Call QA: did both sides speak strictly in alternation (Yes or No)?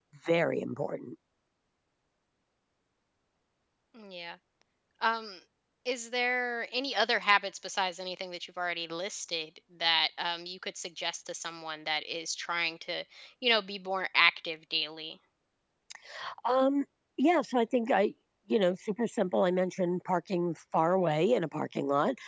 Yes